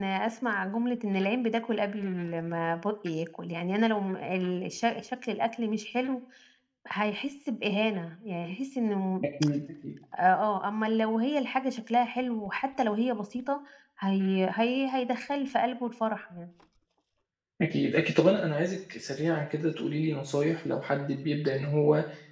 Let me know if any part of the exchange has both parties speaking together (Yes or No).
No